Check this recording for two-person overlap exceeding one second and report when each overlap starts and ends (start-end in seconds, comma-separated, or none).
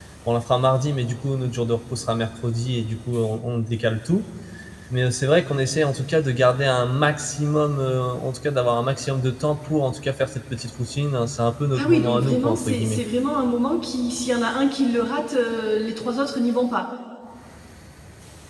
11.8-13.0